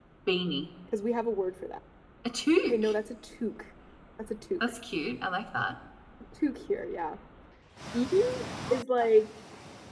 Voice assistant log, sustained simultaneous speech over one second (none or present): none